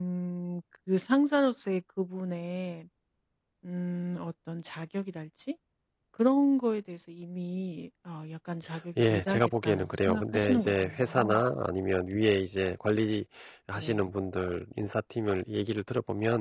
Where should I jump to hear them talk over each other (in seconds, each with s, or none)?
9.0 s